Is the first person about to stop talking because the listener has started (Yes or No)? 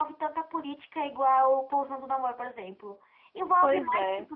No